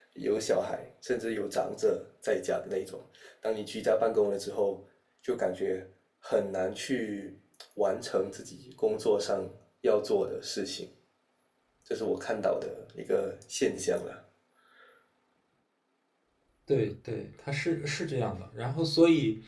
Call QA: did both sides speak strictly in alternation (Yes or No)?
Yes